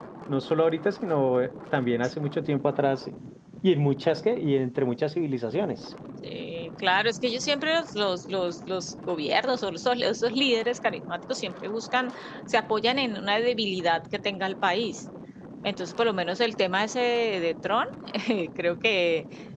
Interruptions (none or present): none